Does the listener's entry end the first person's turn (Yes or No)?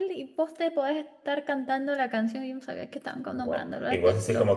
Yes